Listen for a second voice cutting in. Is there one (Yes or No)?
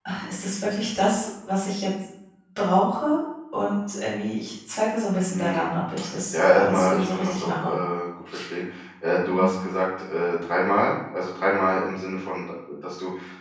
Yes